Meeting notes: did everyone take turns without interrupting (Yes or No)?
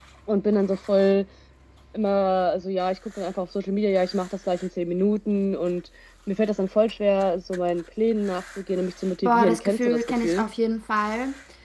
No